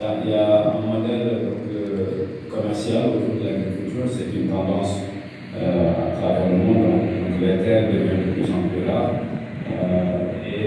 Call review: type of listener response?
listening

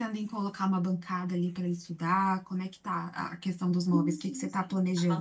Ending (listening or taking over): taking over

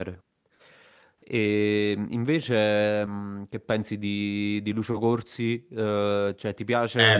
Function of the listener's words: taking over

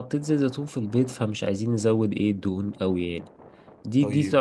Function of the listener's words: listening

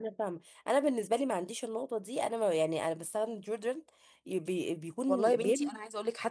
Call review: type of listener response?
taking over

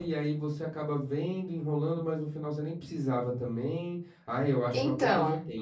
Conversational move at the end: listening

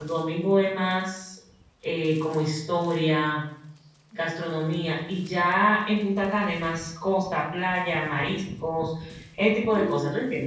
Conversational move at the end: taking over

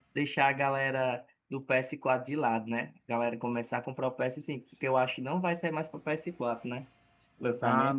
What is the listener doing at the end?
taking over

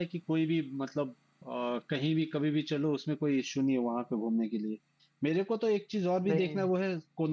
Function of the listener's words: listening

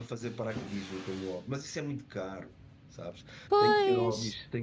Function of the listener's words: listening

